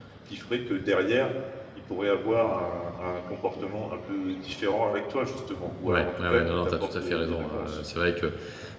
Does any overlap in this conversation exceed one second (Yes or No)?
Yes